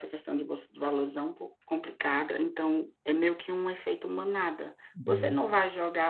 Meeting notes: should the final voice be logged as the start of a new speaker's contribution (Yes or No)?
No